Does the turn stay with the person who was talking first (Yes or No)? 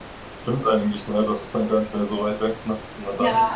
No